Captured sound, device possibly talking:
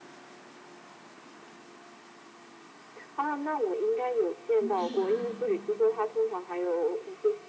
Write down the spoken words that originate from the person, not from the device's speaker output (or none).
真的是来。